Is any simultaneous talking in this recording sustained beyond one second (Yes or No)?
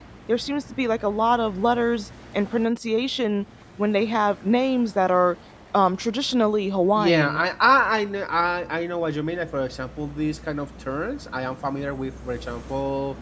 No